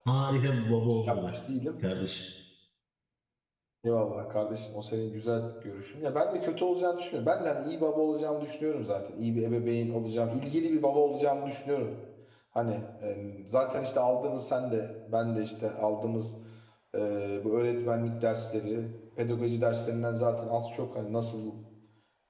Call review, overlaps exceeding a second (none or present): none